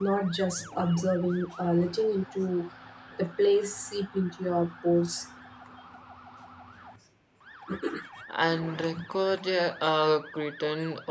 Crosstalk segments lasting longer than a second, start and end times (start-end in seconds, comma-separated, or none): none